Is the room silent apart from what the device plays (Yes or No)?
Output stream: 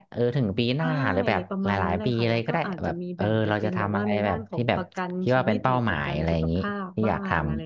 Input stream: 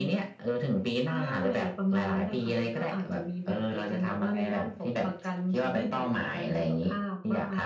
Yes